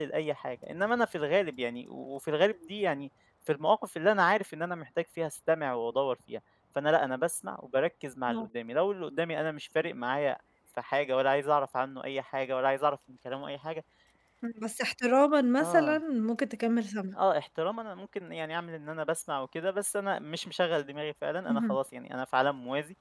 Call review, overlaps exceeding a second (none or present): none